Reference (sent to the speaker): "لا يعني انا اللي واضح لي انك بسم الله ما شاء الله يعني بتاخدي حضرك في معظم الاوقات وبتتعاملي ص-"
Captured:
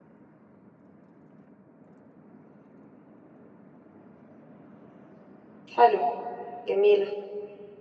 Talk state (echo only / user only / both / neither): user only